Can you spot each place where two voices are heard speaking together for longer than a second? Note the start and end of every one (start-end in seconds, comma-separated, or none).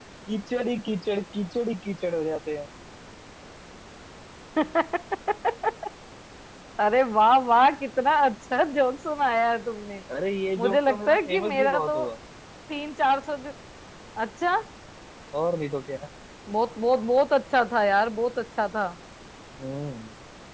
10.6-12.0